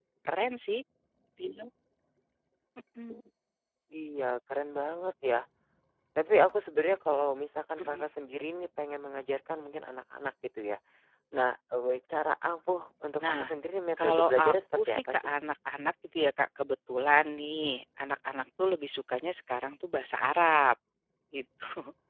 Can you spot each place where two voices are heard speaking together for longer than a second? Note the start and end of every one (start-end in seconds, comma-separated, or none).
14.0-15.3